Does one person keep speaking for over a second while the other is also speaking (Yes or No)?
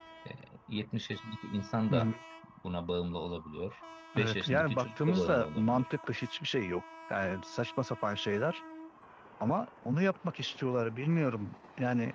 Yes